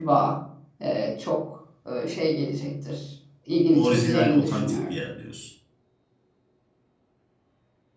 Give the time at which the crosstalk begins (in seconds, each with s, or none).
3.7 s